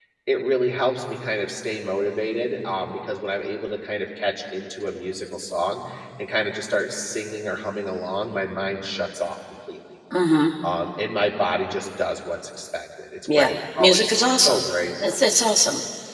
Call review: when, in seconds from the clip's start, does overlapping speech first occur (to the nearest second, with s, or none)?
13 s